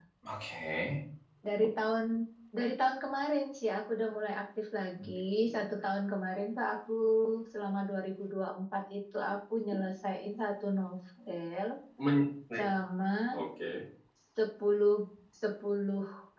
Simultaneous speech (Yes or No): No